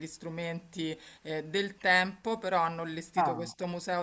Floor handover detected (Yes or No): No